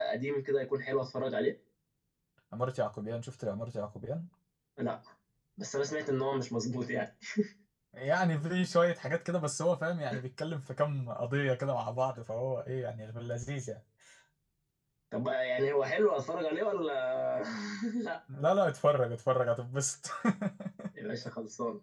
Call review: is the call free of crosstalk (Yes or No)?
Yes